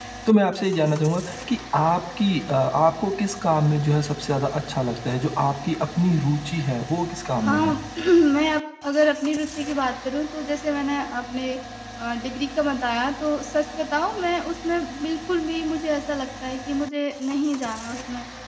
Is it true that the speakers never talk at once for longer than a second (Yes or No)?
Yes